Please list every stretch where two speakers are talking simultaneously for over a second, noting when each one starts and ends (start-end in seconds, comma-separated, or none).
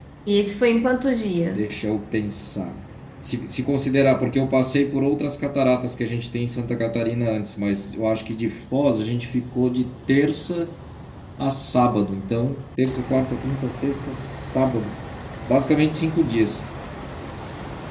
none